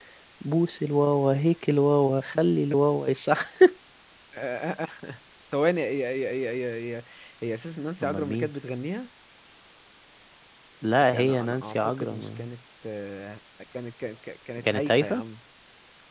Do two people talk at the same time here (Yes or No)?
Yes